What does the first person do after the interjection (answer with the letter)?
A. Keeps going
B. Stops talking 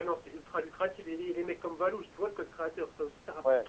B